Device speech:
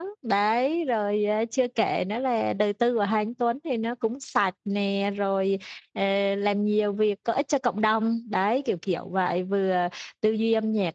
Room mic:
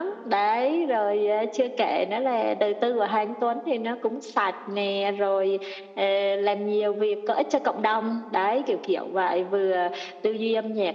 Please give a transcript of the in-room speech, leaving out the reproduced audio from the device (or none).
none